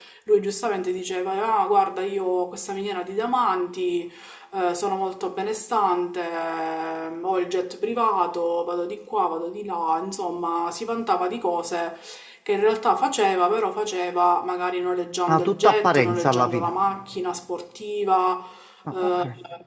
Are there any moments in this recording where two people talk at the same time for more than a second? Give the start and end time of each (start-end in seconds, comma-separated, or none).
15.3-16.7